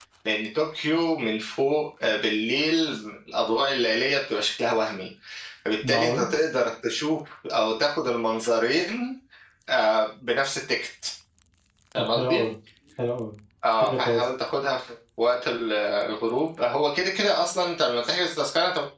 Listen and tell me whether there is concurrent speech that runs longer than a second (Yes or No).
No